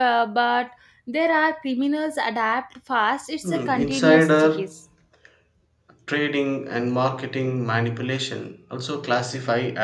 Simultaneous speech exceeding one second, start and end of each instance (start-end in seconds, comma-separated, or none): 3.4-4.6